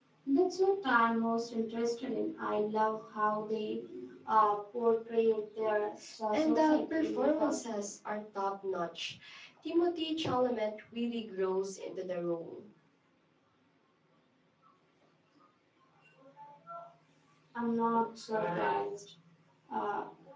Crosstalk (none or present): present